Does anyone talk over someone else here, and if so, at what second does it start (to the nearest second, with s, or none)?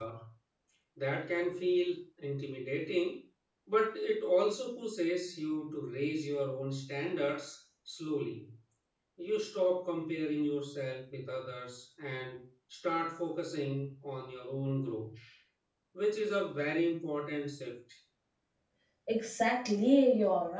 none